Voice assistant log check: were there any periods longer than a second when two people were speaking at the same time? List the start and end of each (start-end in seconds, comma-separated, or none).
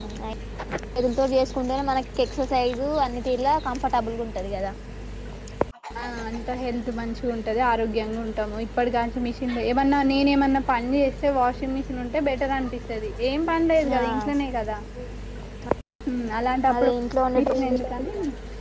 none